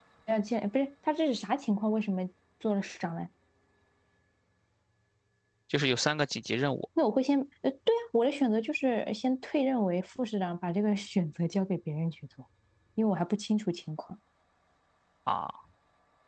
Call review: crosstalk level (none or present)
none